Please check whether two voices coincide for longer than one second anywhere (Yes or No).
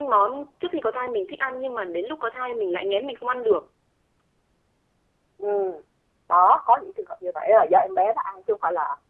No